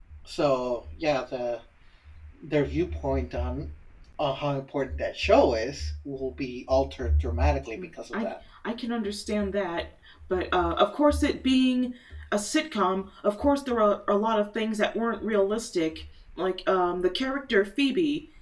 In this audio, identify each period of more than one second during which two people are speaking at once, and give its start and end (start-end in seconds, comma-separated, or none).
none